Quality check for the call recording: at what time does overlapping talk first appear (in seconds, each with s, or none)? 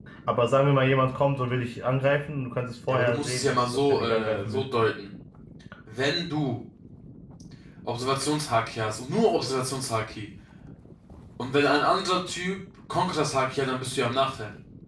2.9 s